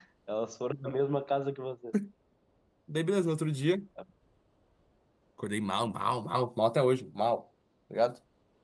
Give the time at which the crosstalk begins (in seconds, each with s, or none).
none